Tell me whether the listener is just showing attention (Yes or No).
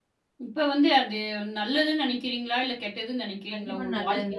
No